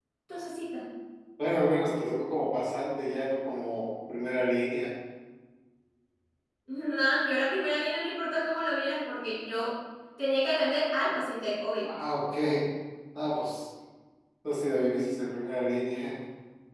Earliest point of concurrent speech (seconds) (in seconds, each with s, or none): none